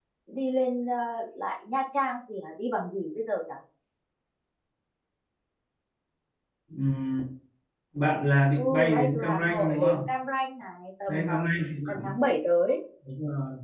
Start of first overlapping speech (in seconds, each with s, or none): 8.6 s